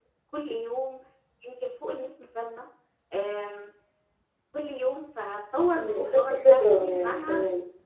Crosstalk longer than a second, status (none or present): present